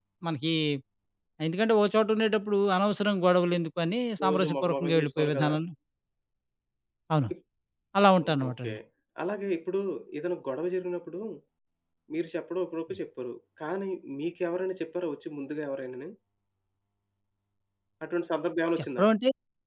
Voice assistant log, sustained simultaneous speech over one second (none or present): present